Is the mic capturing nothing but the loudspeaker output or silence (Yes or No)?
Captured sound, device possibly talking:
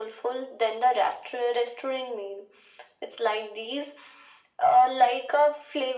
Yes